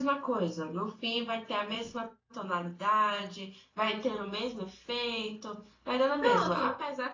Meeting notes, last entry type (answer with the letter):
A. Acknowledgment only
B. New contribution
A